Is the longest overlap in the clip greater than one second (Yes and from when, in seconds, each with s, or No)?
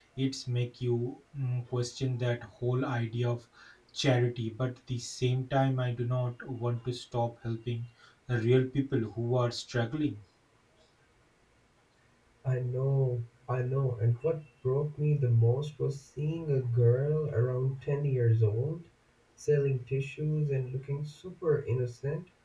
No